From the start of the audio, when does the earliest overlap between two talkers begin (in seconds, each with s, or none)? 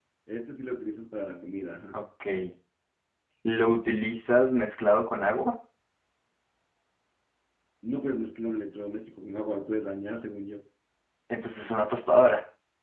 none